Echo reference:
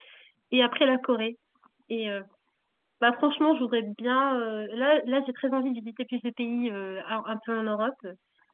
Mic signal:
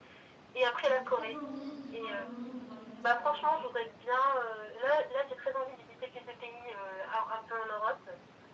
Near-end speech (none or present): present